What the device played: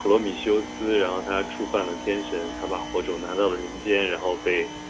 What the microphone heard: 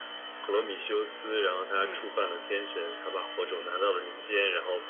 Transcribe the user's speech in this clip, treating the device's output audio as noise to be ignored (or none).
嗯，